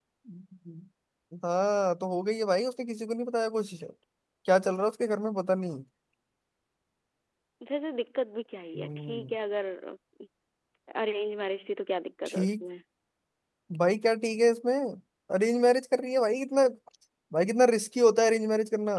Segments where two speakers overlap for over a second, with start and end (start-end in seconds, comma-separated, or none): none